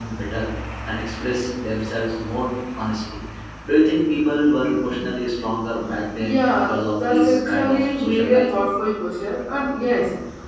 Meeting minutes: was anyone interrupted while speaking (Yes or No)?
Yes